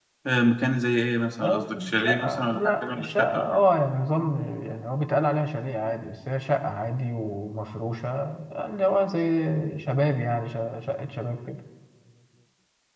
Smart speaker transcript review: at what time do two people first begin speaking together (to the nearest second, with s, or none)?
1 s